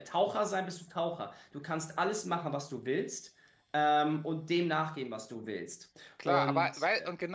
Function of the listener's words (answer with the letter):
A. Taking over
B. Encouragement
A